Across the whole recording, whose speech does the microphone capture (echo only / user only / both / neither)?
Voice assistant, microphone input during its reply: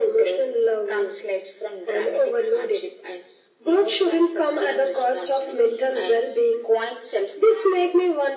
echo only